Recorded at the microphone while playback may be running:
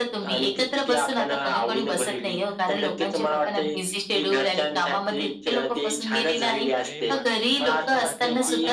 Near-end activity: present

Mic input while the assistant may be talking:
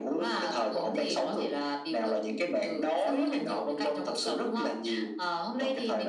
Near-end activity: none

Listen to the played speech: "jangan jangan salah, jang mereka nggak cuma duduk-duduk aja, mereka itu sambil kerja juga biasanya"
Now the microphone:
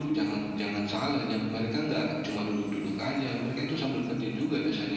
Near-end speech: none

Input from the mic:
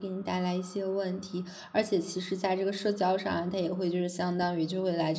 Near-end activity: present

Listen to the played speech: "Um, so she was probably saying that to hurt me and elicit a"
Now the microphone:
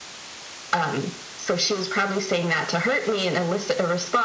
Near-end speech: none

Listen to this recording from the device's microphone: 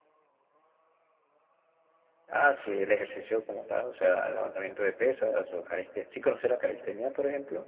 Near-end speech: none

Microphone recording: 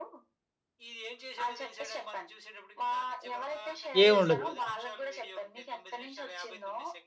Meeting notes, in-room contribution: present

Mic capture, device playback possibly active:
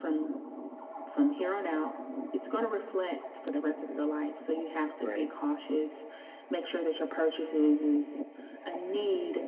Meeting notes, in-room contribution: present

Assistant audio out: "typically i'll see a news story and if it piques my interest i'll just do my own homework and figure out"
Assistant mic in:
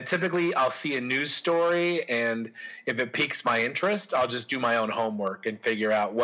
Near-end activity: none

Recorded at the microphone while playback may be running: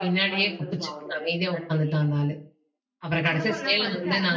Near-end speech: present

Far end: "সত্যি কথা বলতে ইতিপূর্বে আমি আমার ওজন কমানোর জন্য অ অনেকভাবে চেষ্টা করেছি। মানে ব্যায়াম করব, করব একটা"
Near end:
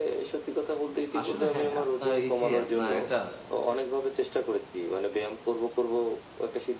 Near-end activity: present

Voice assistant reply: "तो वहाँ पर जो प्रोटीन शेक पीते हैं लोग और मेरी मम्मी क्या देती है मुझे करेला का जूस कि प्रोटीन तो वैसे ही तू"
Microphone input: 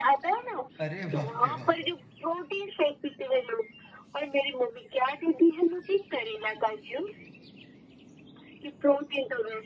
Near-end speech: present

